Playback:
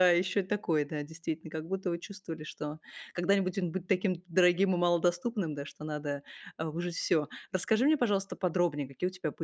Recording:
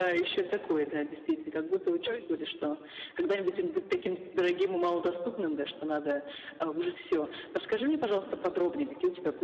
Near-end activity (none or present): present